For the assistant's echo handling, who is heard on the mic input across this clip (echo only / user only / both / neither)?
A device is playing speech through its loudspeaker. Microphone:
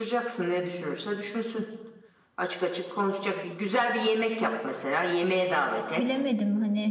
both